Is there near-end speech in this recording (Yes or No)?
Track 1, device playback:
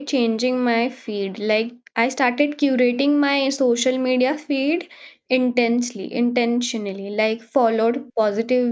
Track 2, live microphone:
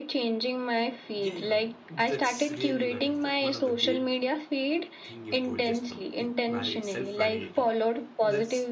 Yes